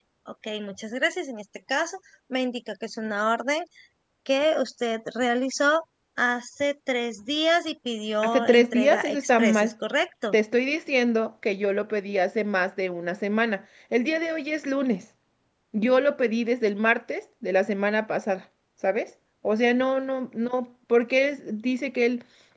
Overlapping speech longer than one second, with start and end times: 8.2-9.7

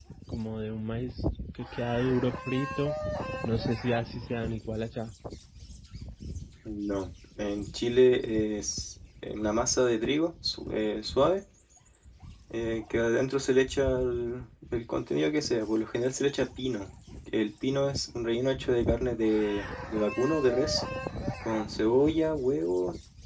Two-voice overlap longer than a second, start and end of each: none

